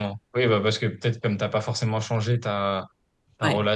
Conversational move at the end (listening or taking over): listening